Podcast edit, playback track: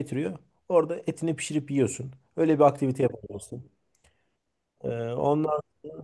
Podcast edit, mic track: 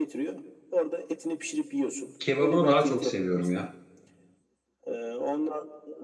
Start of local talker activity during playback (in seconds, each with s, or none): 2.2 s